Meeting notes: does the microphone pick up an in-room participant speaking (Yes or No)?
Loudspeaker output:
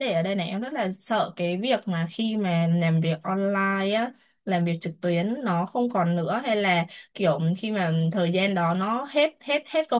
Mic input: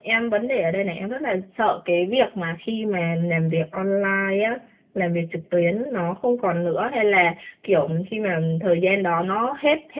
No